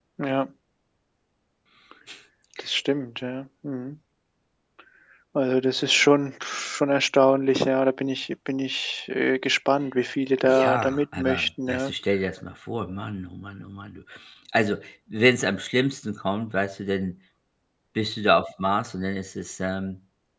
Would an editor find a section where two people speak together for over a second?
Yes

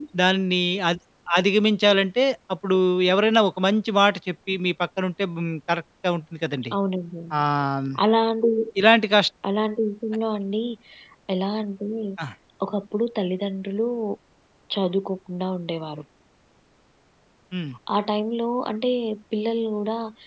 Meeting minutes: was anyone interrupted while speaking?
No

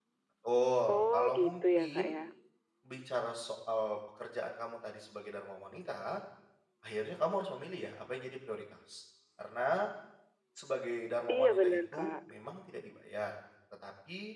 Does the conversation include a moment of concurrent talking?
Yes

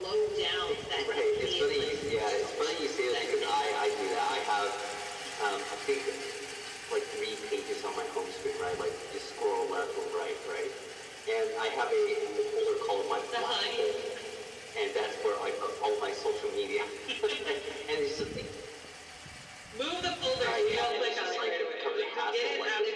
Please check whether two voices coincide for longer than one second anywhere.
Yes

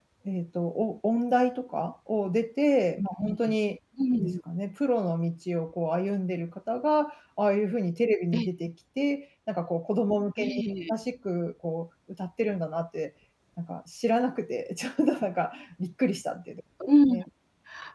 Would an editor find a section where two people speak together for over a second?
No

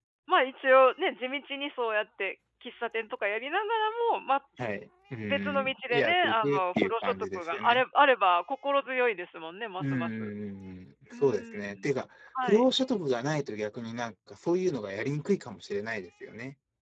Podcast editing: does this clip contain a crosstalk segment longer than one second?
Yes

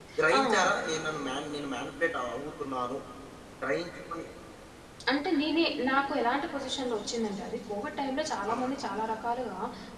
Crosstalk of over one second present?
No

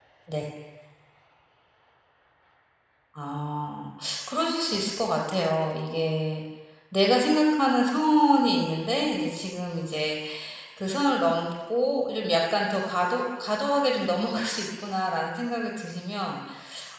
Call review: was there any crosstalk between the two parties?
No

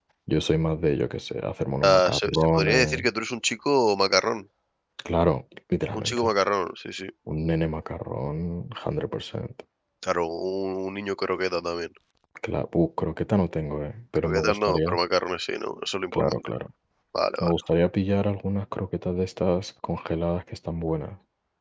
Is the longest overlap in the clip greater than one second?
Yes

